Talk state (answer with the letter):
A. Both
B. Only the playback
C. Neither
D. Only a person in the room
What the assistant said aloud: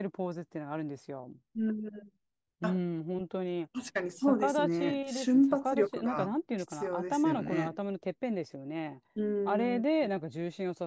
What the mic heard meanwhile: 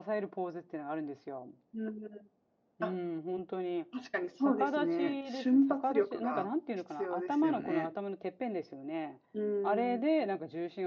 B